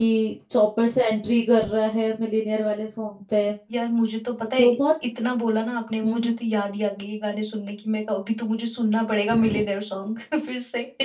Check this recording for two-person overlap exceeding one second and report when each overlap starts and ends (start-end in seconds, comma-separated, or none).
none